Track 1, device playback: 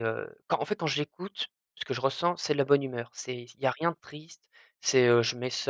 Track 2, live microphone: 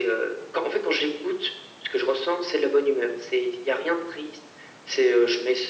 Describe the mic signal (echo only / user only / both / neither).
echo only